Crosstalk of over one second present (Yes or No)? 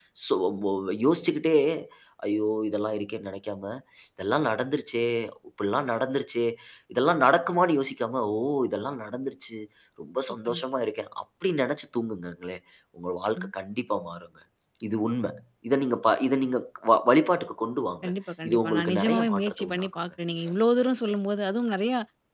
Yes